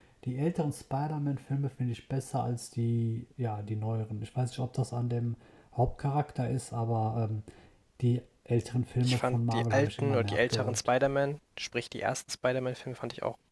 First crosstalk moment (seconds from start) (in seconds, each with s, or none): 9.0 s